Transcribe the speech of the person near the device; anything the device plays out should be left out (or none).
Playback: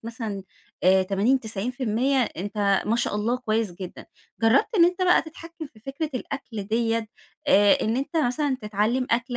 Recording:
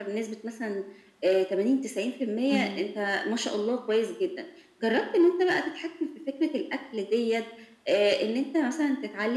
إمم،